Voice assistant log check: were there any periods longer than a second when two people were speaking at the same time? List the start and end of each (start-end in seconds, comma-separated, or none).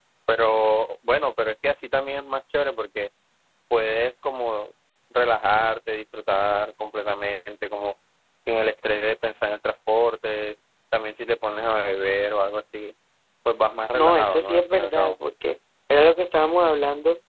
13.9-15.2